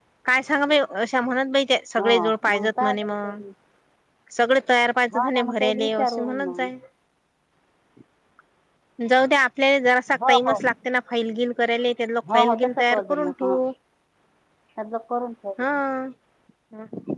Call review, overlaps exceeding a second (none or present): present